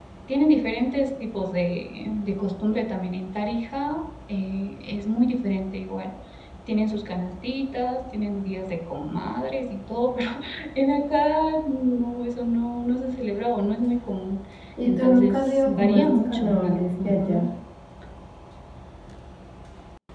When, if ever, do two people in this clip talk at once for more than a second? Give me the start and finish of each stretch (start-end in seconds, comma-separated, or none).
14.8-17.4